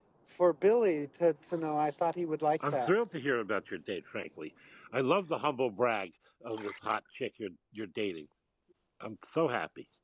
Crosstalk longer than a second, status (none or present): none